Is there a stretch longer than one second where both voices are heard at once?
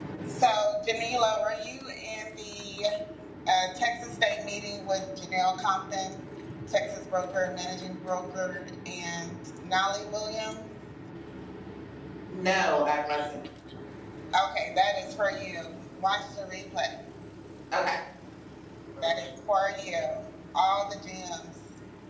No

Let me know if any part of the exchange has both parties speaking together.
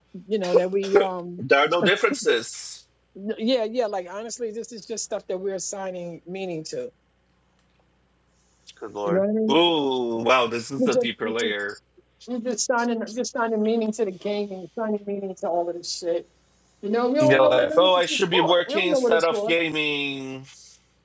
Yes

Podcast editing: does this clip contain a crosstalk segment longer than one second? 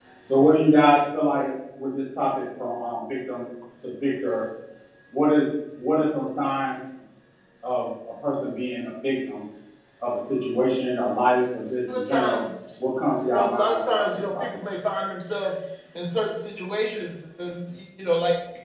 Yes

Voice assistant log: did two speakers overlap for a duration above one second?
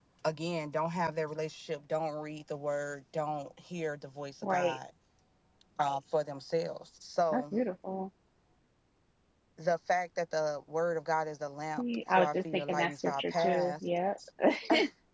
Yes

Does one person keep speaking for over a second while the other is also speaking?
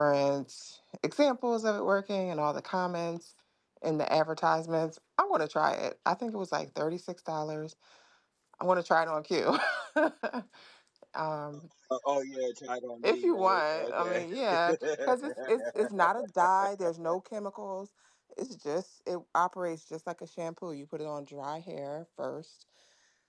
Yes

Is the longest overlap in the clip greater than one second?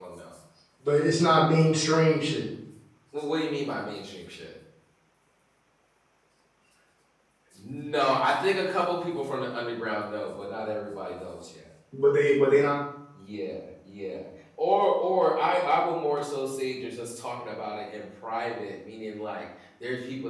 No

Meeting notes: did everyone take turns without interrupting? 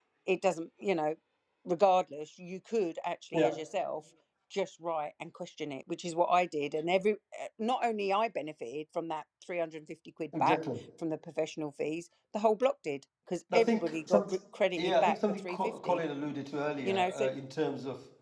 No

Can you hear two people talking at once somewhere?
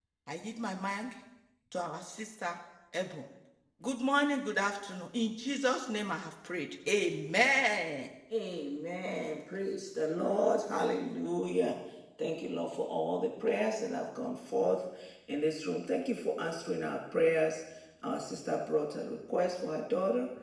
No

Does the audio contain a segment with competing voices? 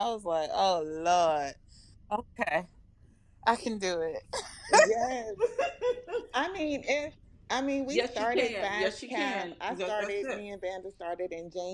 Yes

